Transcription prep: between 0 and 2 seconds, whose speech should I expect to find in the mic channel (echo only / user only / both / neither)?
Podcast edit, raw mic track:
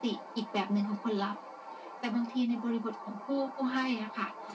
echo only